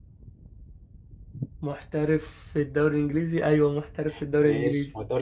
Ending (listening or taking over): taking over